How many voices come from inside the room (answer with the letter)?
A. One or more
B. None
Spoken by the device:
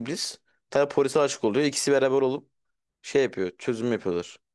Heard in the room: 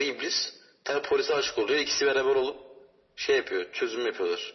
B